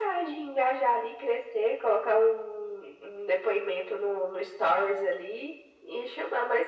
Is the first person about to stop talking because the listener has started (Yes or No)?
No